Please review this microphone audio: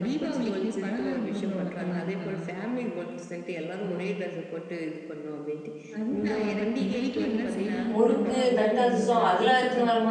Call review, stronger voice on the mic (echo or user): user